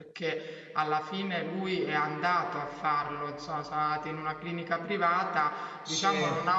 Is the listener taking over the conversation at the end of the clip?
No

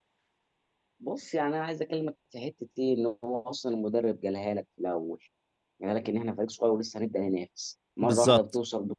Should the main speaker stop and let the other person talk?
No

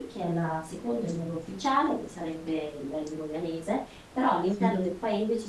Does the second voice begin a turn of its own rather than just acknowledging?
No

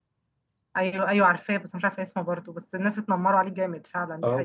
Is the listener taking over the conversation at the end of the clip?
Yes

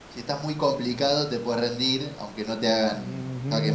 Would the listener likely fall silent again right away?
No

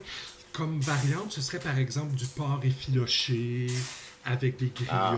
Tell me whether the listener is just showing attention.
Yes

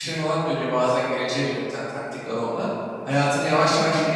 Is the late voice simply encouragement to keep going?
Yes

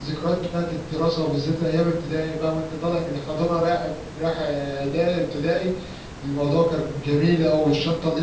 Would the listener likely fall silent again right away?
Yes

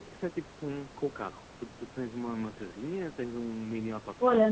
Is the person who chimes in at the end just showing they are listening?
No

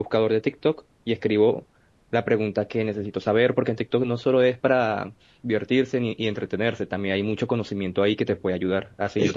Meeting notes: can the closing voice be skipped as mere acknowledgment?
Yes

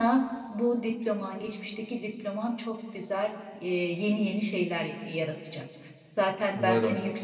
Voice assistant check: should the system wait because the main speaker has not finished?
Yes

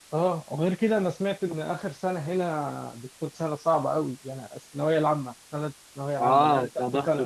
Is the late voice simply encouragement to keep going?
No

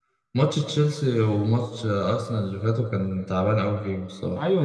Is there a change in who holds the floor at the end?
Yes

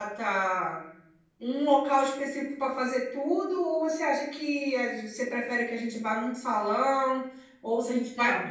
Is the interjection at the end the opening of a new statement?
No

